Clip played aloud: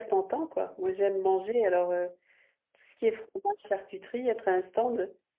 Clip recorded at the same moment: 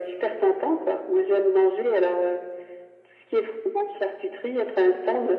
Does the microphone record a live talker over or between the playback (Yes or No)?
No